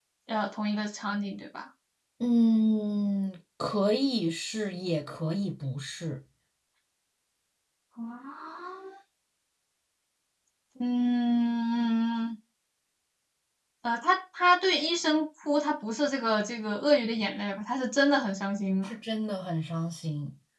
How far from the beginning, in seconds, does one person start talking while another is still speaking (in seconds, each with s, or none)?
none